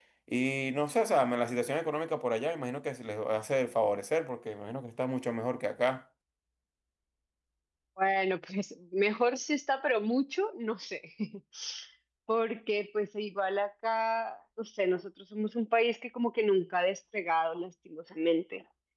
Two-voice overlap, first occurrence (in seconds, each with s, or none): none